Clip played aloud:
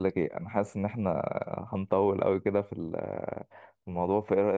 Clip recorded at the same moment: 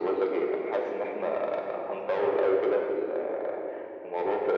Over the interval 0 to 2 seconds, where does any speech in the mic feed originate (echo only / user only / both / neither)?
echo only